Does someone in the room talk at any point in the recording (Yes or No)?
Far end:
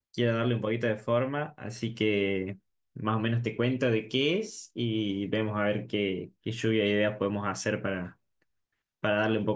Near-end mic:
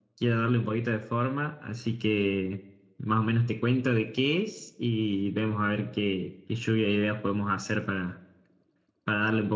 No